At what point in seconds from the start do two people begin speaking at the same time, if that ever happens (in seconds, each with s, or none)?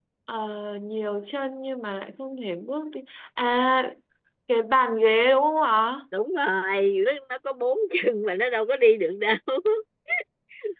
none